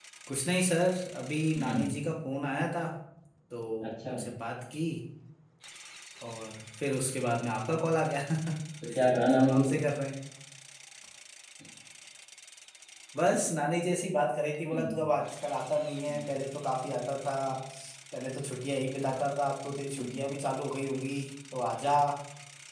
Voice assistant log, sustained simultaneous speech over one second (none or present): none